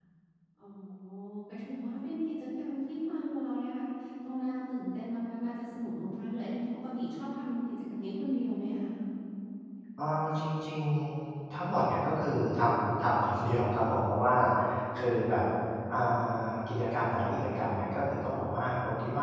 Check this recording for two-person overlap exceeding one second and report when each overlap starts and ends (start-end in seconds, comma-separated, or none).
none